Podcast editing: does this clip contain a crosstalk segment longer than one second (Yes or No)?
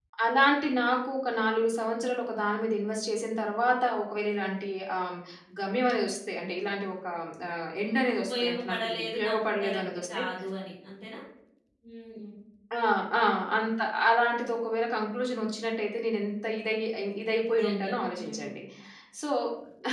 Yes